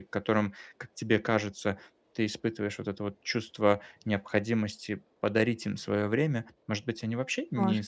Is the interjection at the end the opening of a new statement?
No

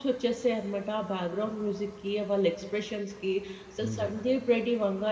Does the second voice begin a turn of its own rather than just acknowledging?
No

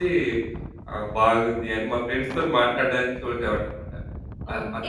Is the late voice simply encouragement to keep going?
No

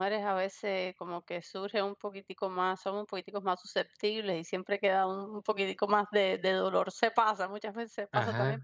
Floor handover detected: No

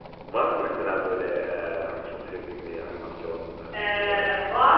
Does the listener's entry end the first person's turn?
Yes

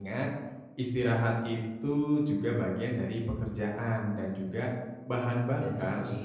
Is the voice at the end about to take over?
No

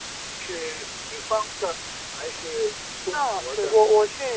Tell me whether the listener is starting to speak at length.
Yes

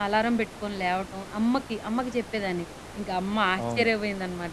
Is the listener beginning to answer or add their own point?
No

